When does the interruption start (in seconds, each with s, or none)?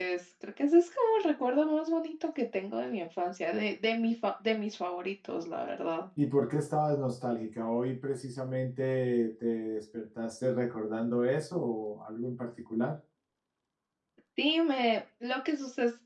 none